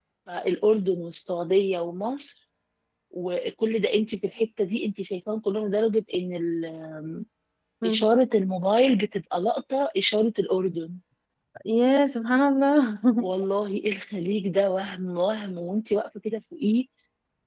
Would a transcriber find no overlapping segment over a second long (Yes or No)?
Yes